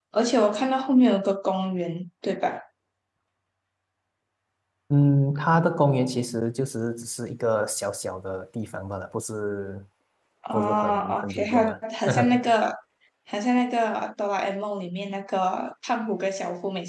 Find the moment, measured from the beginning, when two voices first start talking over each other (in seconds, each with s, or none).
10.5 s